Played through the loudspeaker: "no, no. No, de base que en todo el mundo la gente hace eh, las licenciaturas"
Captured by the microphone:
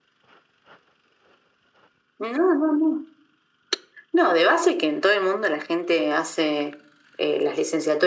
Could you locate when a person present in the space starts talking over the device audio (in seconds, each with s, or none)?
none